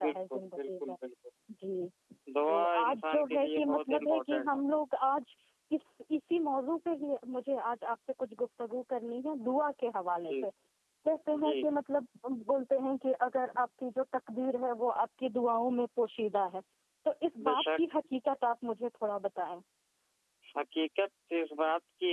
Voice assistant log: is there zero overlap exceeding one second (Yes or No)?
No